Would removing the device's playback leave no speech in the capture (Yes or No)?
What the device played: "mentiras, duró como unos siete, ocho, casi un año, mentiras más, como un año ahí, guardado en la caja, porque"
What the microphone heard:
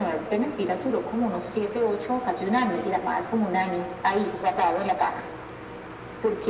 Yes